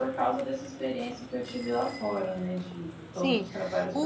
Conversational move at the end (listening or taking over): taking over